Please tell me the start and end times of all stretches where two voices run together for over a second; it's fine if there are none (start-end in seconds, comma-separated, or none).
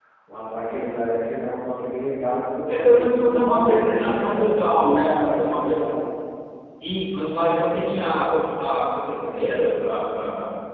2.7-5.9